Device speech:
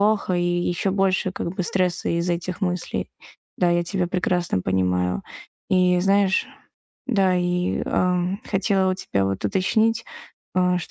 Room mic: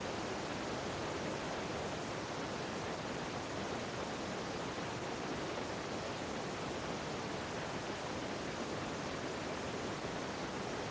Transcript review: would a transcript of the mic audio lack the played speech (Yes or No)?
Yes